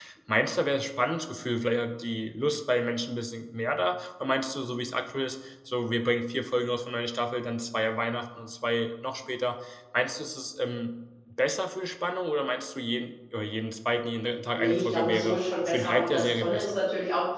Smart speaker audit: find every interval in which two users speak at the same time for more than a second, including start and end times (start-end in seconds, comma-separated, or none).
14.5-16.8